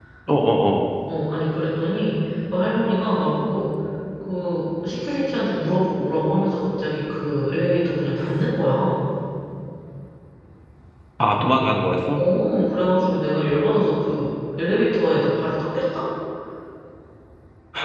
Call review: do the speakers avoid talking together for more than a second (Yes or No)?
Yes